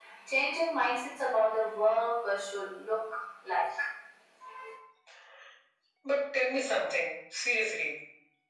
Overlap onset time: none

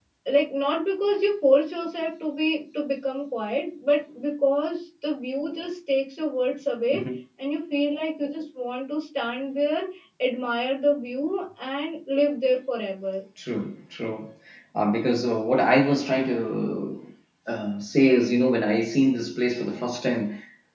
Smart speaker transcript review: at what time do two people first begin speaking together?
none

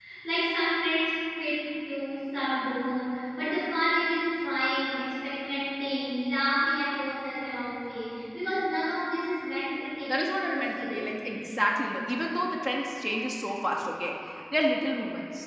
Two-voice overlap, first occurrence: 10.1 s

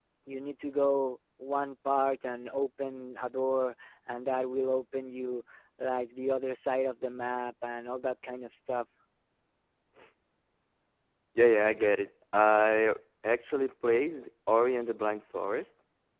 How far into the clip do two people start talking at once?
none

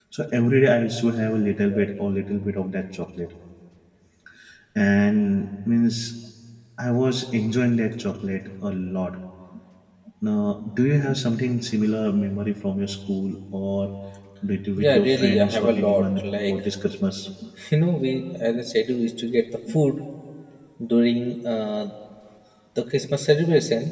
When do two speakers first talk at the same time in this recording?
14.8 s

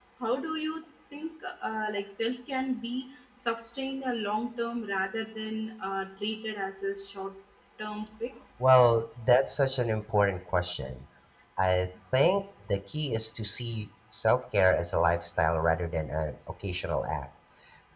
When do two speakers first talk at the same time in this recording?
none

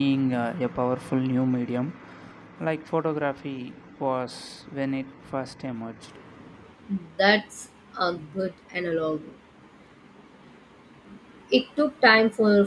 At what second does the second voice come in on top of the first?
none

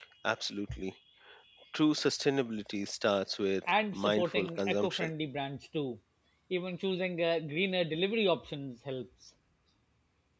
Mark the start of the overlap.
3.7 s

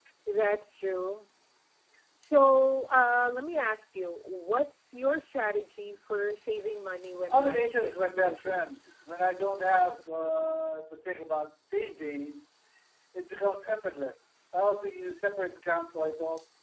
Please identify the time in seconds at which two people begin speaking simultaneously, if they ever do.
7.3 s

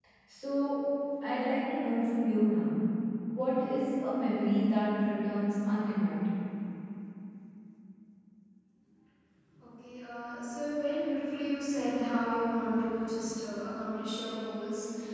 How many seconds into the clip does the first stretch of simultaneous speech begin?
none

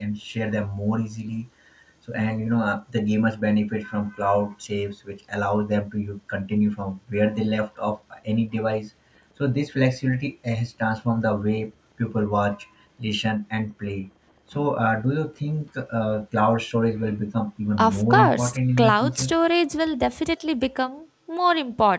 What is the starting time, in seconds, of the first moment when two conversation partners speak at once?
17.8 s

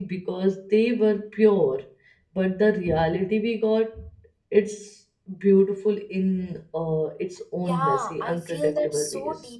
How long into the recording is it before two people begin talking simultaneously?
7.6 s

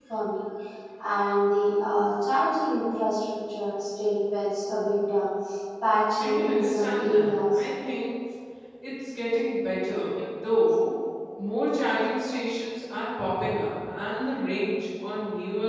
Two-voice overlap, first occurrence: 6.2 s

